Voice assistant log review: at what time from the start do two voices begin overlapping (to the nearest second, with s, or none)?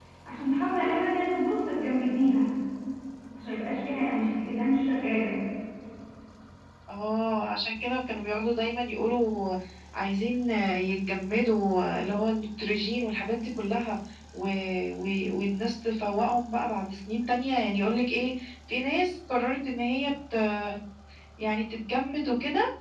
none